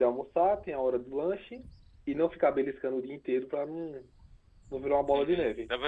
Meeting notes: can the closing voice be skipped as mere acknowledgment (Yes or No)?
No